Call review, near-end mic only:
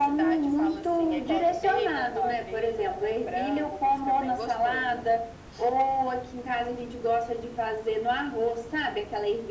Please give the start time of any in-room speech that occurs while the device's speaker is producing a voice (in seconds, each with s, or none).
none